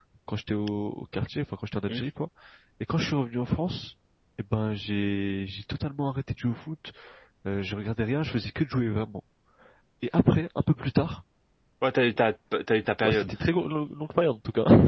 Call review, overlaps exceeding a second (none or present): none